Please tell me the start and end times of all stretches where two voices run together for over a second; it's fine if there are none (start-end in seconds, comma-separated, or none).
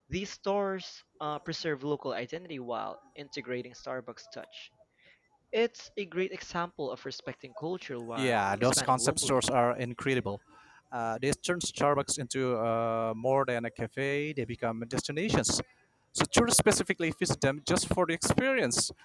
8.2-9.4